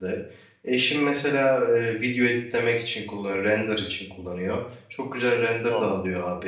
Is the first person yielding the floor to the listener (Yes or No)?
No